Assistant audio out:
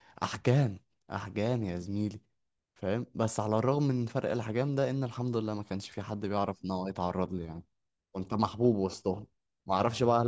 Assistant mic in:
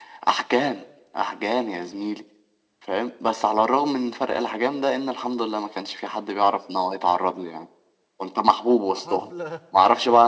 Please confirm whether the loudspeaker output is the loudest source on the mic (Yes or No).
Yes